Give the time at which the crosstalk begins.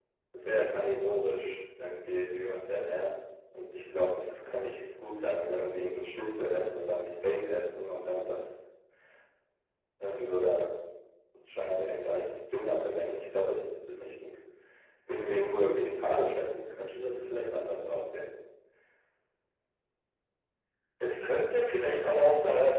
none

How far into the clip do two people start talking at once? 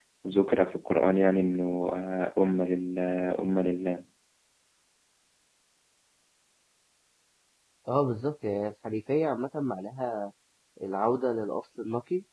none

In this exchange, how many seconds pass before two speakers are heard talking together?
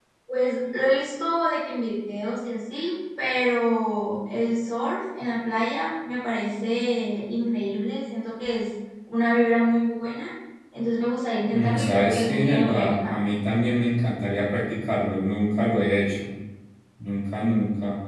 11.5 s

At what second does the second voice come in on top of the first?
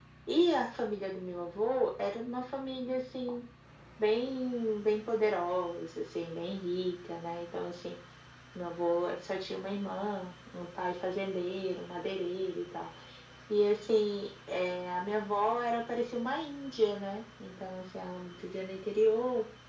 none

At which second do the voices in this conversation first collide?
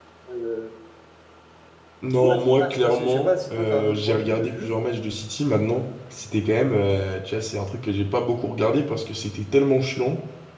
2.2 s

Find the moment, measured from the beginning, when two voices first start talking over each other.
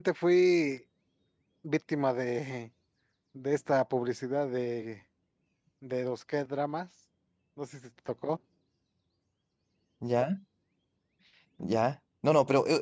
none

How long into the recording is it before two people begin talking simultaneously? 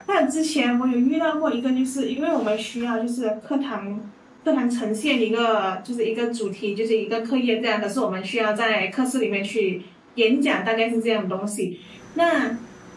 none

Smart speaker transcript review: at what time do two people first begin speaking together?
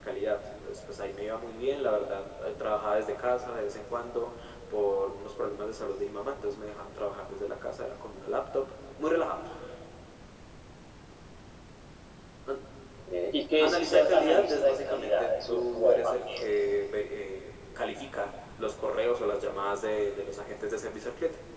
13.6 s

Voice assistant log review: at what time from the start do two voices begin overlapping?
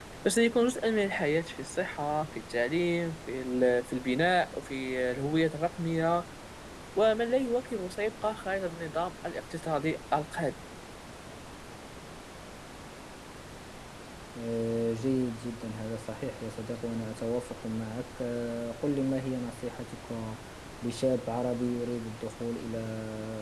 none

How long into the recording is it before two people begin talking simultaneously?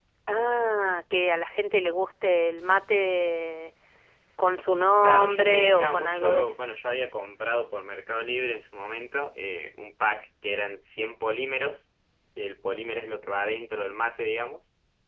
5.0 s

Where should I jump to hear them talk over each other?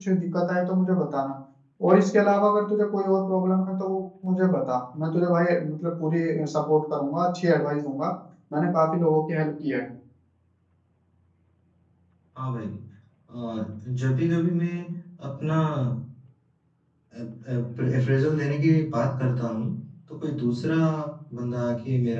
none

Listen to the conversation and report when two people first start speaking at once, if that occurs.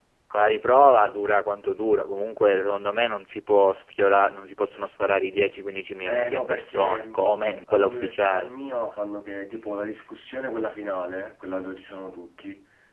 6.0 s

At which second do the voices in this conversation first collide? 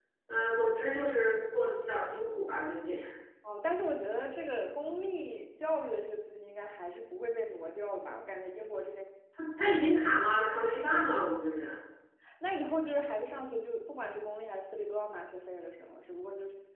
none

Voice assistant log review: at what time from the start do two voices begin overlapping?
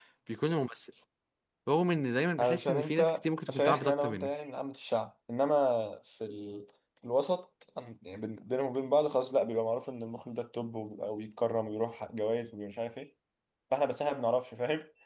2.4 s

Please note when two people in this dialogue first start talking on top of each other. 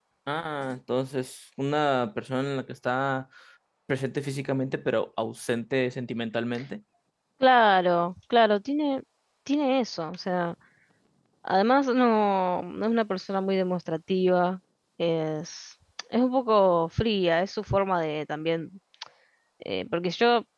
none

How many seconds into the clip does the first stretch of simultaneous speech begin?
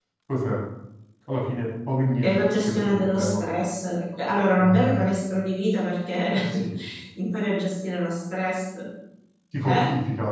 2.2 s

